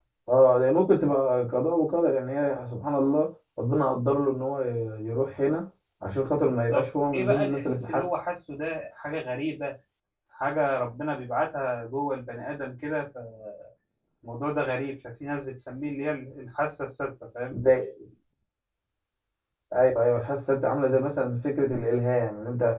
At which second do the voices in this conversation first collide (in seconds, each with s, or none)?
6.5 s